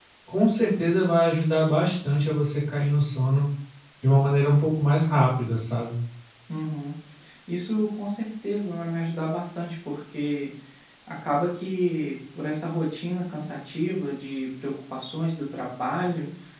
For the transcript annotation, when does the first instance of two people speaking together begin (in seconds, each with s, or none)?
none